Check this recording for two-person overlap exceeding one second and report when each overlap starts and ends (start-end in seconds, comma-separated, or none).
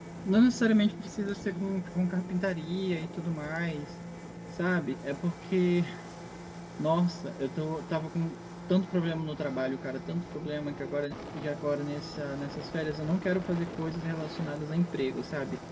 none